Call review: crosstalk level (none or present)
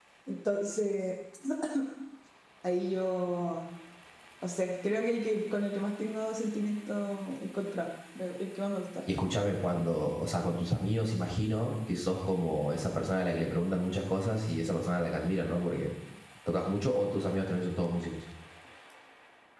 none